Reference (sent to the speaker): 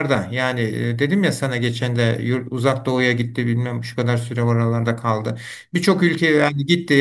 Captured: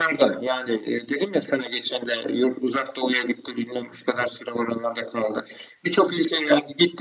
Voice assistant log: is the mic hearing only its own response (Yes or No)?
Yes